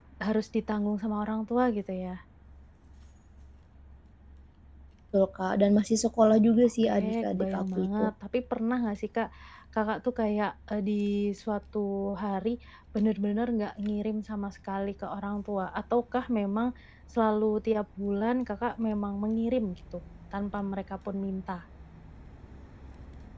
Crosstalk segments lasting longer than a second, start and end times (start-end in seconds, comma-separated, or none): 6.8-8.1